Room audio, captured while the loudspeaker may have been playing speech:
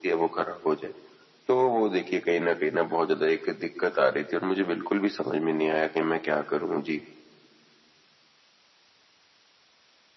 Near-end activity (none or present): none